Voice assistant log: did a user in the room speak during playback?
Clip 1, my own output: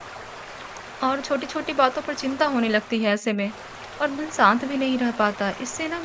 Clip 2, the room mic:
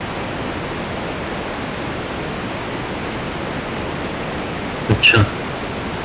Yes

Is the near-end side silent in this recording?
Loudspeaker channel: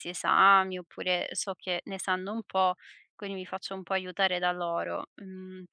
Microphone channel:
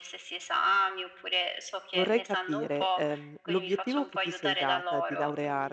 No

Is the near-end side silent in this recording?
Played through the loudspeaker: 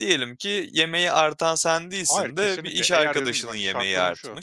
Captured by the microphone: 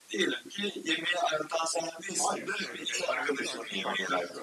No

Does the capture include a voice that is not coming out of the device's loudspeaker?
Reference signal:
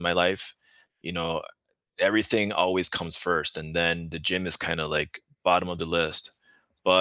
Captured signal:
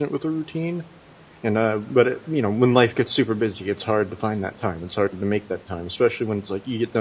Yes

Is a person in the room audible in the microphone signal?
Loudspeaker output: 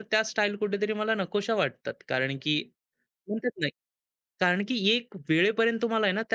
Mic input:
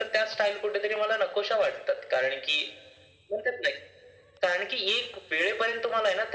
No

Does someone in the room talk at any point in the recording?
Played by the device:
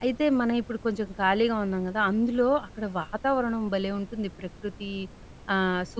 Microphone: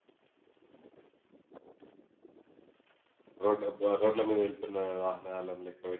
Yes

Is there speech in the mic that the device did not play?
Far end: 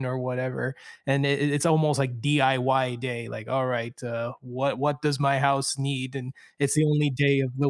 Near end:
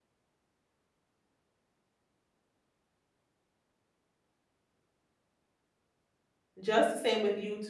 Yes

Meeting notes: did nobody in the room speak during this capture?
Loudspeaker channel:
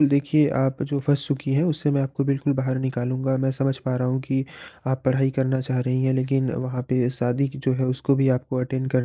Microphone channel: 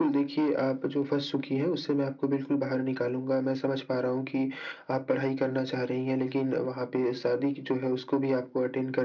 Yes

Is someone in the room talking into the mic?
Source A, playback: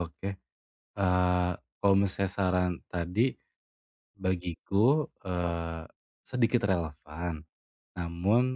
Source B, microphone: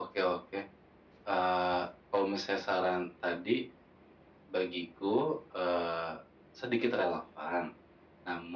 No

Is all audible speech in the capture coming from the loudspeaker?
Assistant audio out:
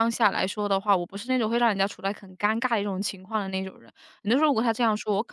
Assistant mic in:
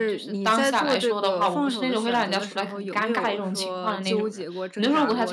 No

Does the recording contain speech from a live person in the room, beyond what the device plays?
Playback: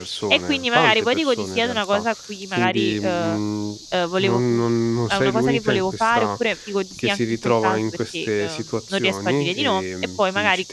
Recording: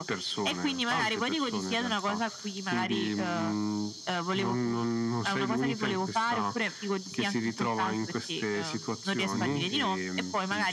Yes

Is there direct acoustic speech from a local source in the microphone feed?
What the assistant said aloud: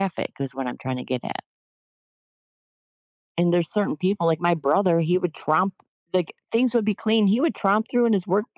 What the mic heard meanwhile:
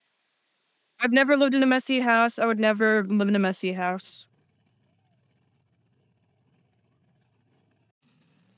Yes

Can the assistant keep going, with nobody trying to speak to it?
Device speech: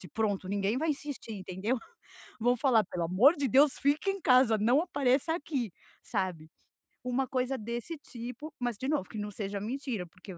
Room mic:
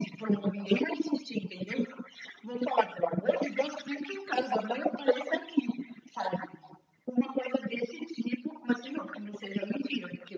Yes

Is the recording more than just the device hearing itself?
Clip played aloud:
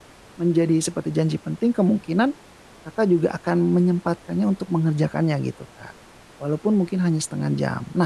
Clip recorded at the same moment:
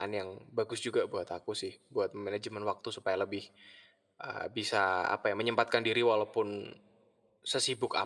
Yes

